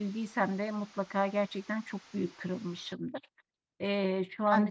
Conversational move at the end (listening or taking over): listening